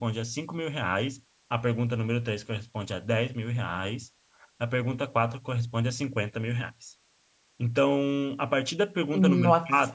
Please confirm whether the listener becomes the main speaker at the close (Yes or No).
No